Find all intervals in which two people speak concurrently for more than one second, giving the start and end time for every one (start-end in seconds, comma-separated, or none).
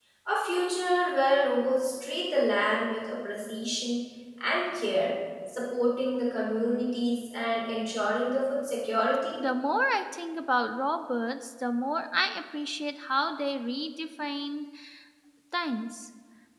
none